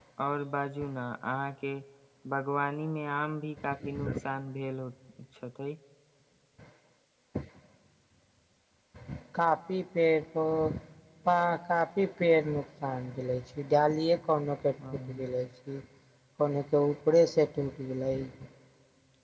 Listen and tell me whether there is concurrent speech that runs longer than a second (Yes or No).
No